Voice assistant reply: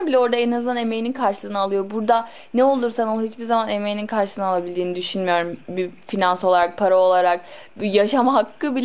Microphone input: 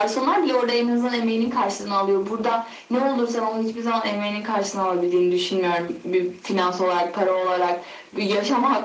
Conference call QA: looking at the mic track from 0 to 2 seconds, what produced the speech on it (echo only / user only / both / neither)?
echo only